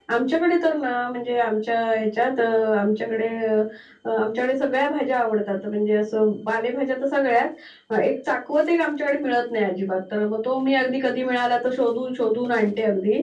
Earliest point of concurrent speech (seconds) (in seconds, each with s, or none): none